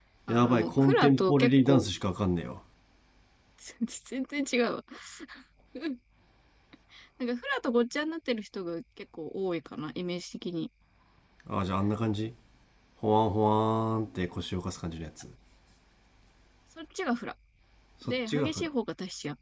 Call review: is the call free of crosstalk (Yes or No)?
No